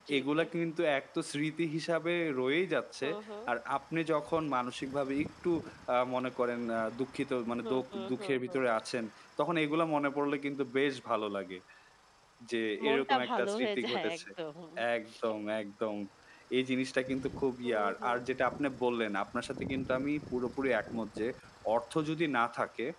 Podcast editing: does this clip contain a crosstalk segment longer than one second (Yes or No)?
Yes